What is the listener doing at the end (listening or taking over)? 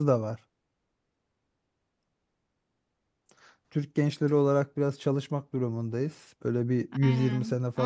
taking over